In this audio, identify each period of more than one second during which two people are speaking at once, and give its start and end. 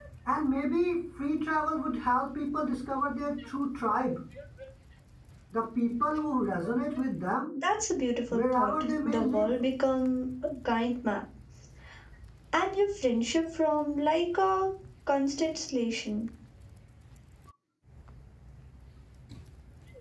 8.3-9.5

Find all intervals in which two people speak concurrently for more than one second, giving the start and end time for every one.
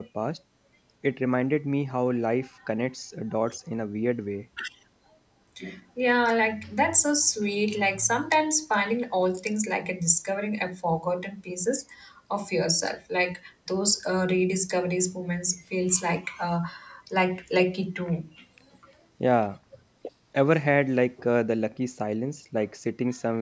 none

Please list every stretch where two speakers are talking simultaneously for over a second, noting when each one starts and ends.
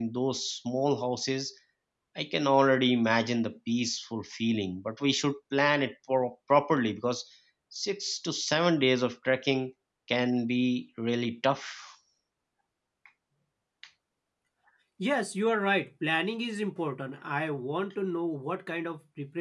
none

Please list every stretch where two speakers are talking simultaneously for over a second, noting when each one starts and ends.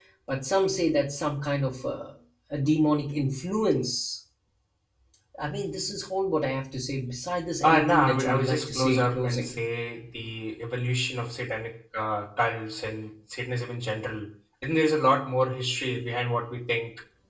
7.6-9.6

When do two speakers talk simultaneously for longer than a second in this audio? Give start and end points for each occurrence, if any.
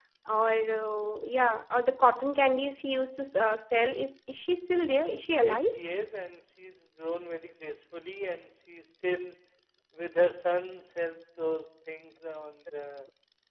none

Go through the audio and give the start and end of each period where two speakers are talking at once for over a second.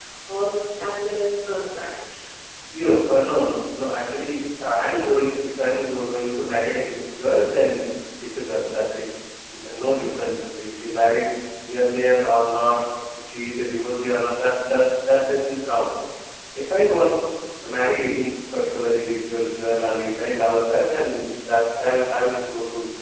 none

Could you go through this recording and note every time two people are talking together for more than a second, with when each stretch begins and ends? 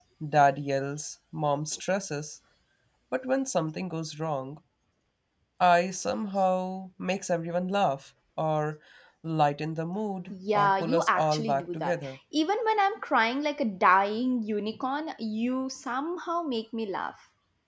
10.3-11.9

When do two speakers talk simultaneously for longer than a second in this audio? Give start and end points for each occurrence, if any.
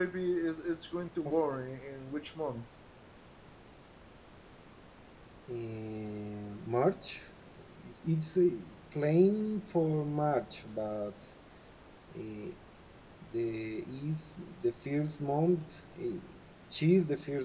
none

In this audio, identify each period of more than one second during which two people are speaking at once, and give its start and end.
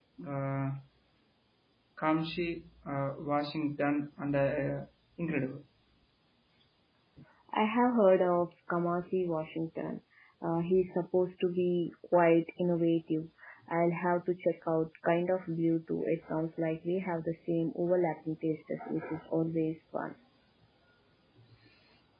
none

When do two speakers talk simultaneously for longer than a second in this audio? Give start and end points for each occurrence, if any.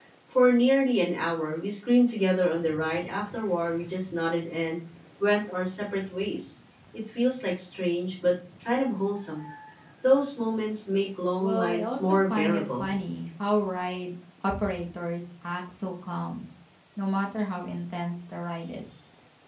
11.4-12.9

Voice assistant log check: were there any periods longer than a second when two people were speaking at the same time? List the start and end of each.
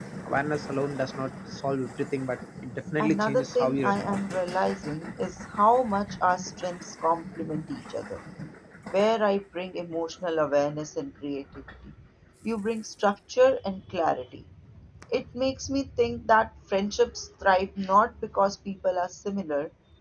3.0-4.2

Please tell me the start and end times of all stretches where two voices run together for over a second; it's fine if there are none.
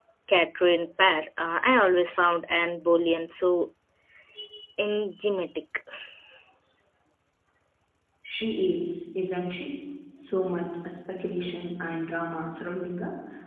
none

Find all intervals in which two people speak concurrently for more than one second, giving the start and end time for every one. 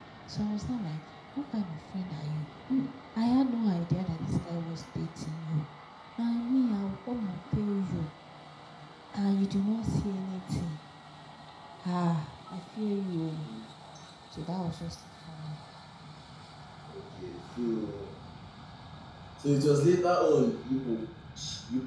none

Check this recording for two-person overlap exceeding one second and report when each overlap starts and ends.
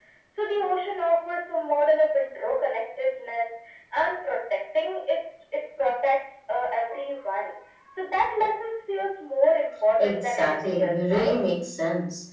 10.0-11.4

